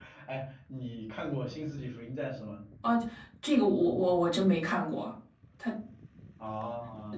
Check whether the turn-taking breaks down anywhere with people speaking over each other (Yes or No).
No